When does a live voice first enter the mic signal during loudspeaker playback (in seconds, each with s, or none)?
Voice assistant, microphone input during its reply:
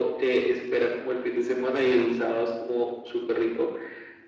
none